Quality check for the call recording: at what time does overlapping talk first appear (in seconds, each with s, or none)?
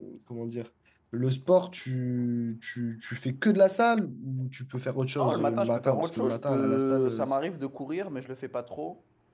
5.2 s